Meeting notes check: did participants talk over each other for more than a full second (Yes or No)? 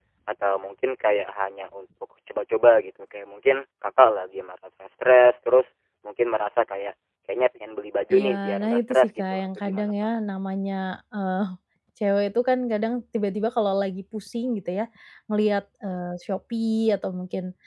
Yes